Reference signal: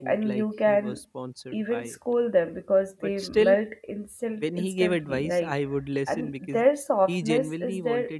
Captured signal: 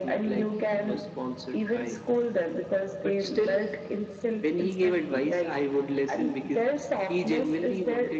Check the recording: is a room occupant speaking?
No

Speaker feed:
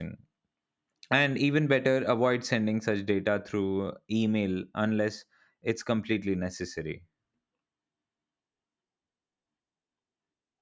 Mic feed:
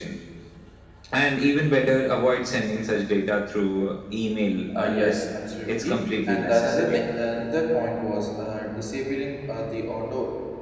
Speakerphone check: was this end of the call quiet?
No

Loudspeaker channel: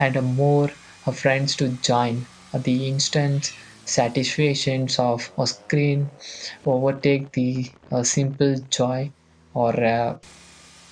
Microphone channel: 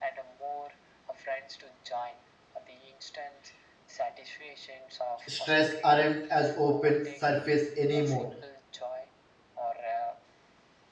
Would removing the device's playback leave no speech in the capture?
No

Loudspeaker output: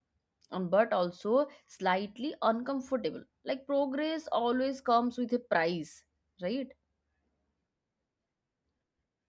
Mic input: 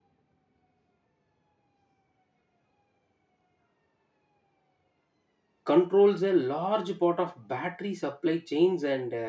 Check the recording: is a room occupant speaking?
Yes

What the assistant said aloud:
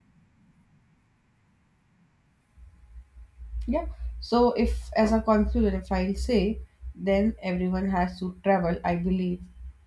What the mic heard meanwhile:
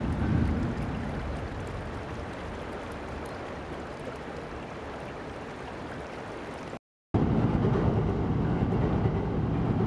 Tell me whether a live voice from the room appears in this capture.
No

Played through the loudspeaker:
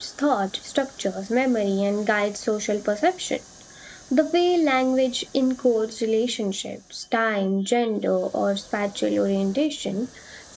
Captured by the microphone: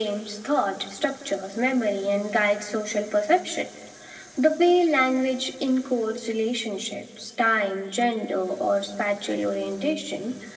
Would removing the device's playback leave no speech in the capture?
Yes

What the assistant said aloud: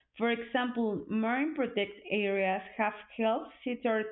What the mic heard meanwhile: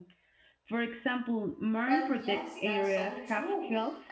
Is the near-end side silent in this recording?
No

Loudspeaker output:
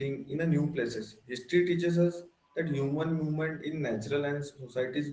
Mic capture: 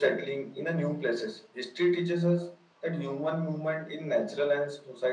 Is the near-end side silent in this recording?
Yes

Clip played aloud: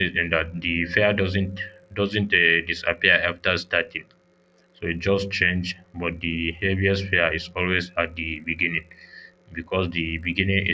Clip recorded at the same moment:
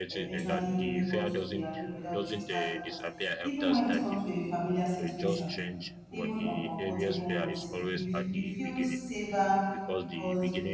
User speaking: Yes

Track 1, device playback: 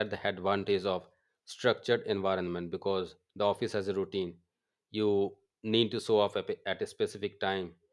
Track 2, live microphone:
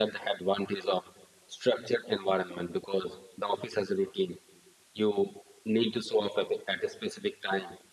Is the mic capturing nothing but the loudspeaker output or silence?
Yes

